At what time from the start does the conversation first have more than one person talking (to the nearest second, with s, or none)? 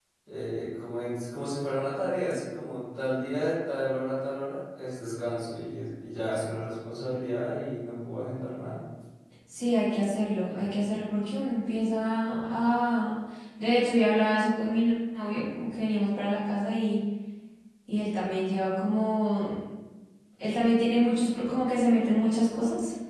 none